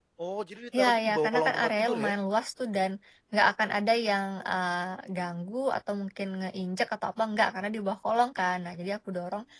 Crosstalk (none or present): present